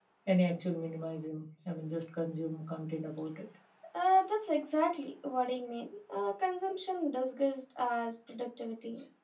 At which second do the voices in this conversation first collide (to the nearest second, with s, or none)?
none